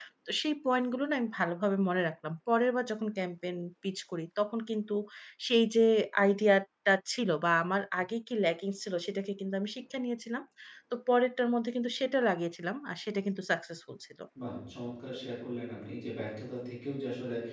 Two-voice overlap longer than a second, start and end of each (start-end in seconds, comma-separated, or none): none